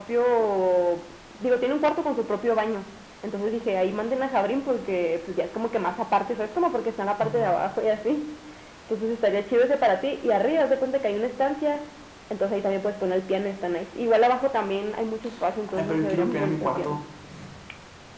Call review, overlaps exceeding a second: present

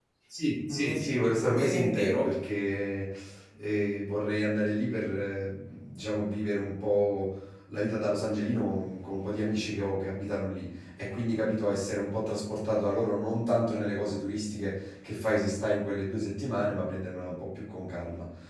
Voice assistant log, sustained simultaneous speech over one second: present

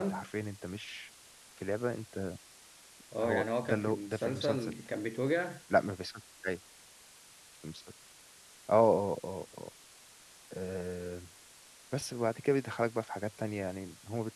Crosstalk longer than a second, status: present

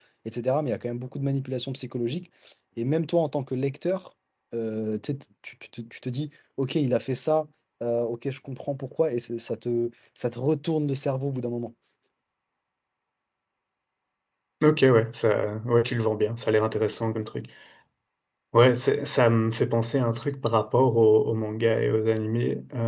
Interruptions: none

